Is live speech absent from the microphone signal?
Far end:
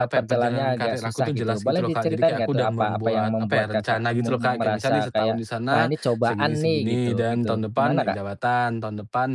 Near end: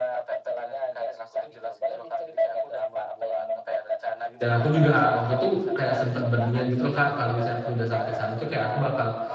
No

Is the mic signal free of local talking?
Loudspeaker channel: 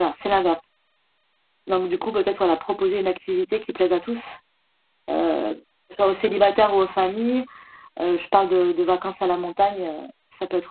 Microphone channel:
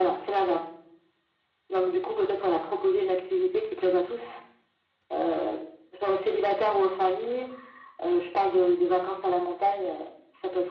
Yes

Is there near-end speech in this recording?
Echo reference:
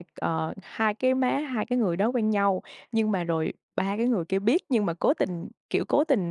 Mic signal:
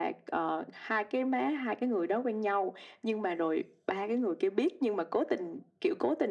No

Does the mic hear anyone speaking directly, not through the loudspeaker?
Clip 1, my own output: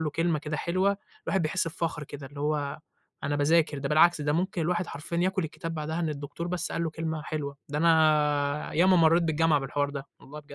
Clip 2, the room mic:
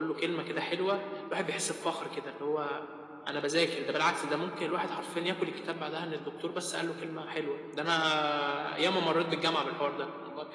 No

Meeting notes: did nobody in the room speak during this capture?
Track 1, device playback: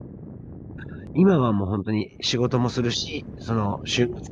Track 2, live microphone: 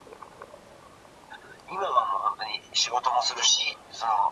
Yes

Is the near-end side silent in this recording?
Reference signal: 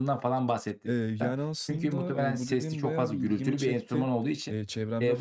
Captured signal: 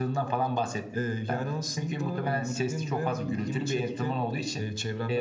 Yes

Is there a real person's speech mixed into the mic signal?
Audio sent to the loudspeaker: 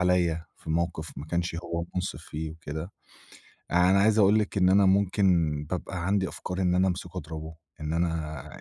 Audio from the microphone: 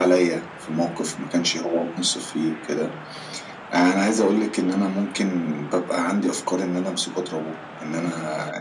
No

